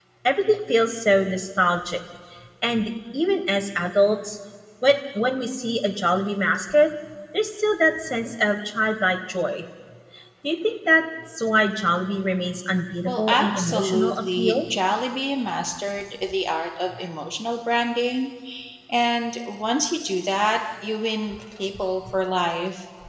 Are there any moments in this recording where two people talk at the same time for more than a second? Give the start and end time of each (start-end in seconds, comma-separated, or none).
13.0-14.6